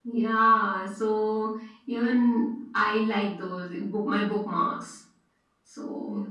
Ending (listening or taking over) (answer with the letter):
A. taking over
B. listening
A